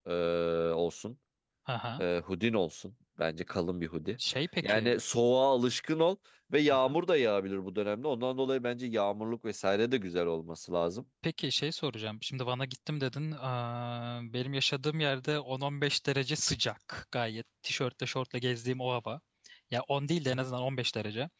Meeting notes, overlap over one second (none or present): none